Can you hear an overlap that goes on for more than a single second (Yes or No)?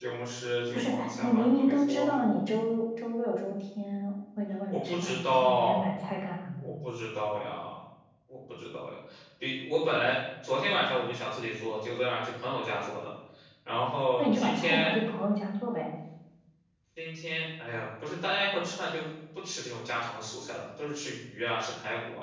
Yes